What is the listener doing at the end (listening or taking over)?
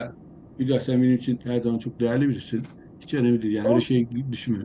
listening